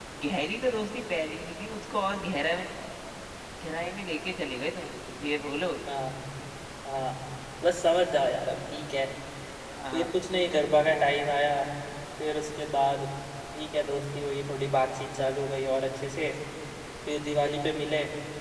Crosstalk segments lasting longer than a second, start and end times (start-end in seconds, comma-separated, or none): none